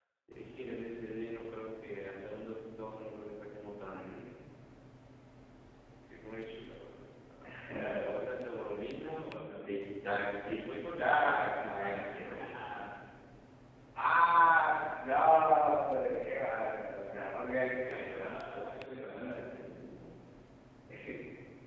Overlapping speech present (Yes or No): Yes